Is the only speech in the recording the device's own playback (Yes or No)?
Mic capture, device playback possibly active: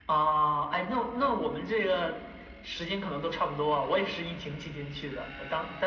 Yes